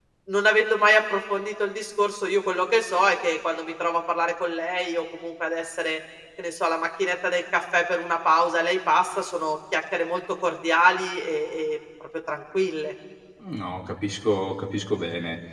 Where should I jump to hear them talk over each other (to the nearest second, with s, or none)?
none